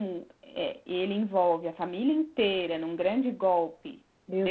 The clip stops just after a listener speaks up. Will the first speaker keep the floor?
No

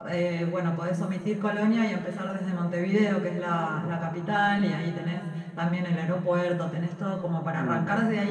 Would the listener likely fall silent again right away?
Yes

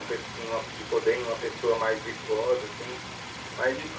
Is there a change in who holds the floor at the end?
Yes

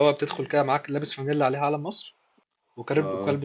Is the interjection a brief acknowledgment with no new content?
Yes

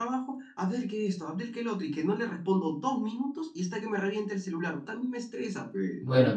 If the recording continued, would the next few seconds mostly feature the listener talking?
Yes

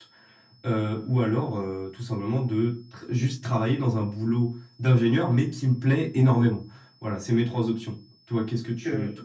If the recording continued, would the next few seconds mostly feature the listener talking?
Yes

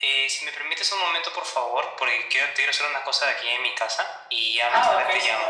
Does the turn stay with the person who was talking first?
No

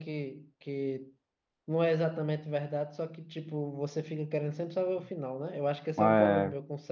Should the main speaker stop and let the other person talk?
No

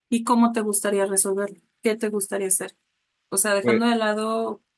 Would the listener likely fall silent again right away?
Yes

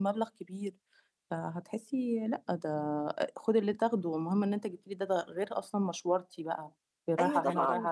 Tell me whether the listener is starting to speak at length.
Yes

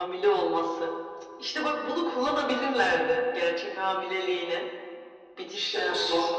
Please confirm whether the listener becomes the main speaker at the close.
Yes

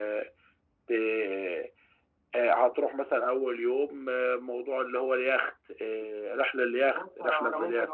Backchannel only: No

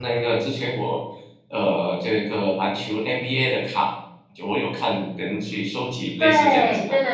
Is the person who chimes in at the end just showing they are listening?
No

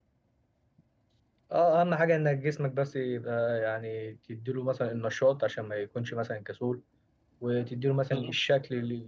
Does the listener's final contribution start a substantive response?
No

